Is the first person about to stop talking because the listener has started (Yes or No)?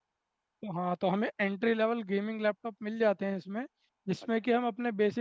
No